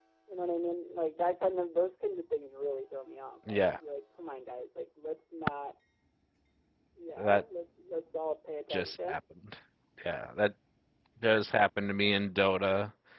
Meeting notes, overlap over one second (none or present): none